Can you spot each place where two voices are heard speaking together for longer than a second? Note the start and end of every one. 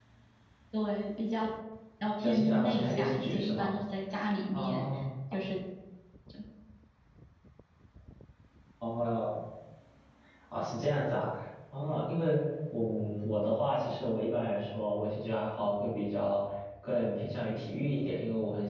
2.2-3.7

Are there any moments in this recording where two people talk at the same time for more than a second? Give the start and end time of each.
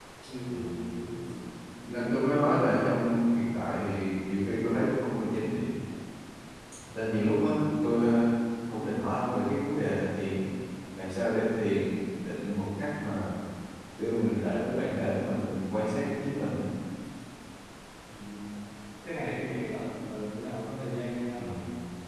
1.9-3.1

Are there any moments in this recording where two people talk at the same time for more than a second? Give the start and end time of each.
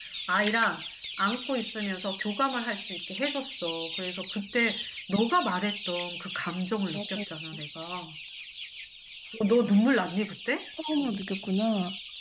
none

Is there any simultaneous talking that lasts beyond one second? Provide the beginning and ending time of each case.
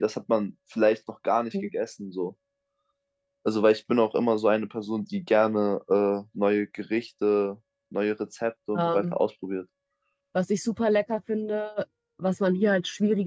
none

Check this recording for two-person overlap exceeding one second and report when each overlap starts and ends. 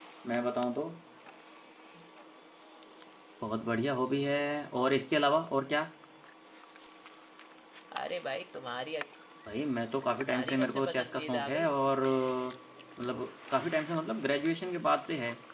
10.2-11.7

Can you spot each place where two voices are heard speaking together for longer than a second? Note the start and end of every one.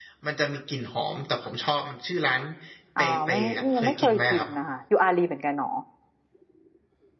3.0-4.5

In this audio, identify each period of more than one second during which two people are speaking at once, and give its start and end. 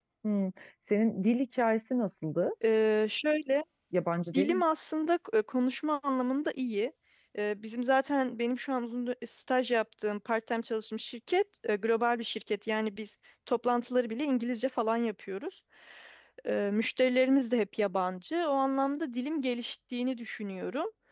none

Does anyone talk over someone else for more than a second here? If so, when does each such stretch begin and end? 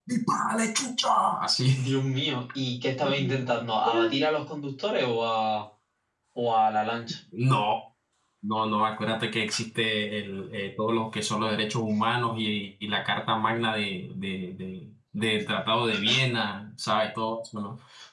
none

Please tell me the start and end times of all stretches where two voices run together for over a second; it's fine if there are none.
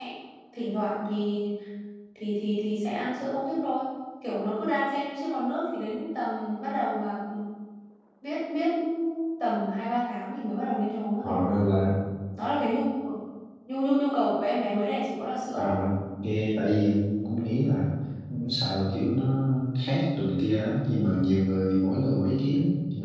none

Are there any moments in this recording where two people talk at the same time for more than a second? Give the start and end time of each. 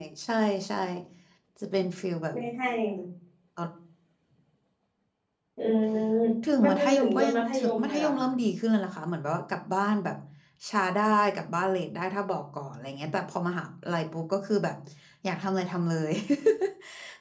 6.6-8.2

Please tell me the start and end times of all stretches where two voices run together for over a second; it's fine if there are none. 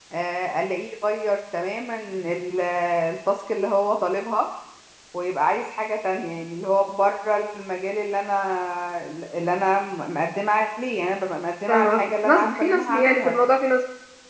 11.7-13.4

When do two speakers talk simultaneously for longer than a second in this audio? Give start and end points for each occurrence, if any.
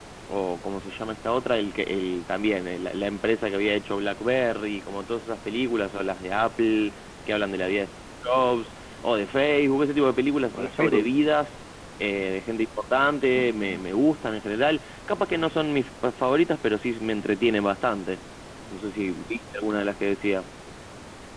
none

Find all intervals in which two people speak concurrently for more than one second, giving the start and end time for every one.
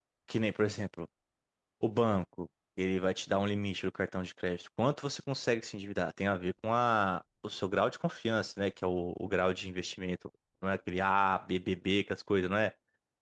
none

